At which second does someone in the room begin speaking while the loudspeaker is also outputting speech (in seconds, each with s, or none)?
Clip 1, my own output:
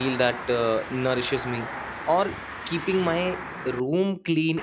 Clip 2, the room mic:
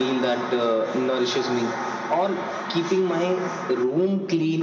none